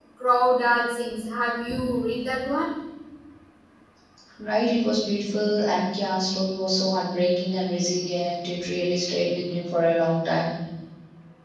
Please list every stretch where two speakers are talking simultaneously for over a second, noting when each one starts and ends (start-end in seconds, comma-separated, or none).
none